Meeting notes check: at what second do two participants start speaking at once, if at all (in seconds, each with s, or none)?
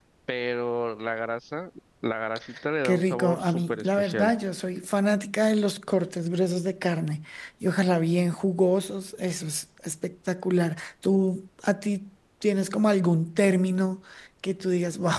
2.8 s